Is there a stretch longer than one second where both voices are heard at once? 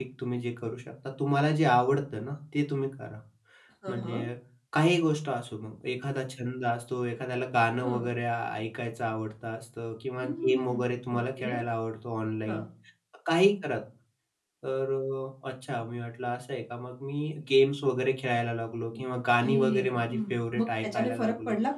Yes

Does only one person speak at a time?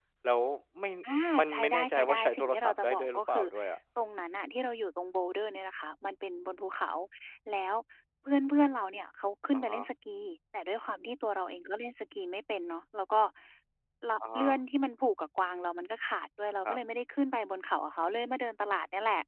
No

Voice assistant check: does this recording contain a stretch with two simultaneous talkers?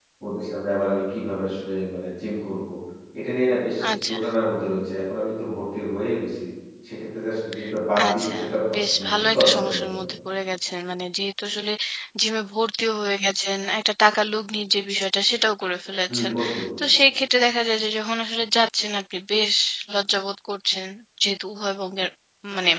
Yes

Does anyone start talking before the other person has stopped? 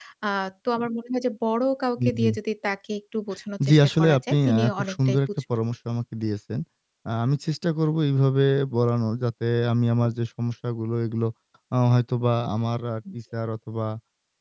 Yes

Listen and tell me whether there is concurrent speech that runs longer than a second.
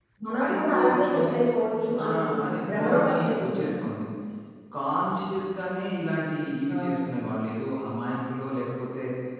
Yes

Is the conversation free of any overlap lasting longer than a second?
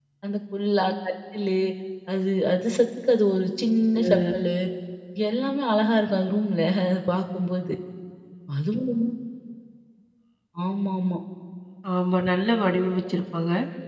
Yes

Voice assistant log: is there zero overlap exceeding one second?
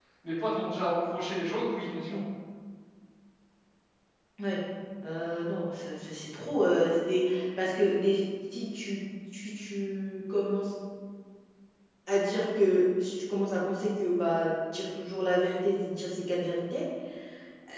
Yes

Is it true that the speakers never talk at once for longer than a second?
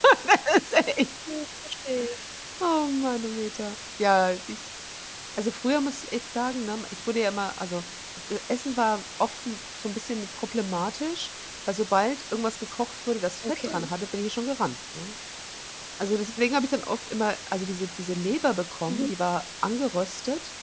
Yes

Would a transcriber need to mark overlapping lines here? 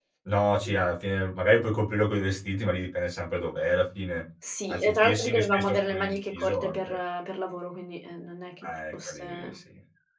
Yes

